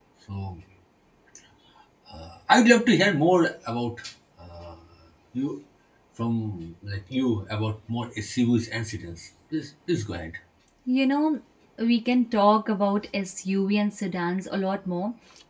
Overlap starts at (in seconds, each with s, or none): none